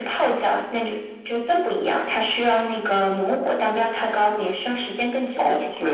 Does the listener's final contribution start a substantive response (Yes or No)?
Yes